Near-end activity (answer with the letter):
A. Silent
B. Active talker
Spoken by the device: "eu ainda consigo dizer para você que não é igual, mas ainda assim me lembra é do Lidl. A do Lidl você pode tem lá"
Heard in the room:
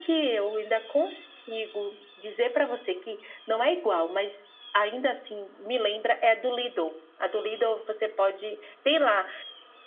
A